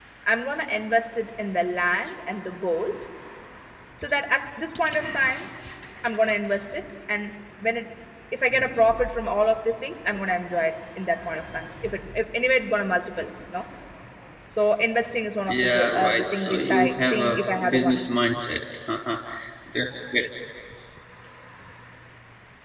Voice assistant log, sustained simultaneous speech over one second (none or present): present